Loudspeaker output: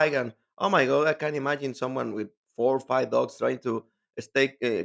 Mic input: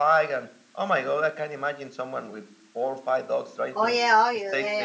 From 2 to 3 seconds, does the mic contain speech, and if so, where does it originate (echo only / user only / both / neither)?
echo only